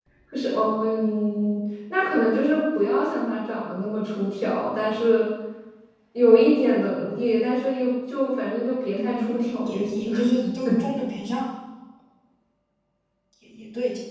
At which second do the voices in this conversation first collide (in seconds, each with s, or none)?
8.9 s